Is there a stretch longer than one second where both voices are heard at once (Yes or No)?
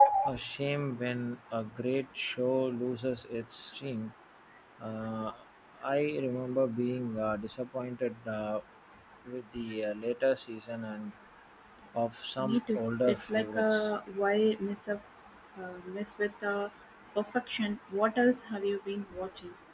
Yes